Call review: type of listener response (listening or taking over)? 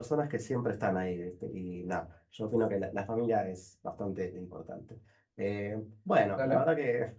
listening